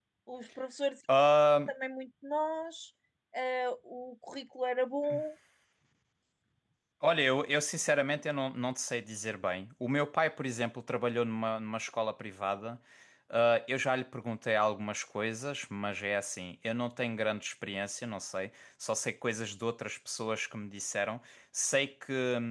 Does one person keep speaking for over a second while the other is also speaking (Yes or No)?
No